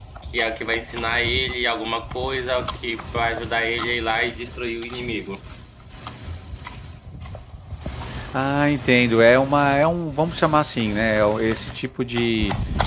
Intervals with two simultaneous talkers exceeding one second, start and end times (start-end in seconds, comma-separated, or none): none